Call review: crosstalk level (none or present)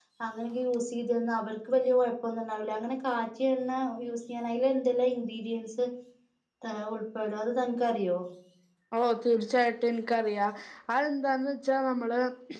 none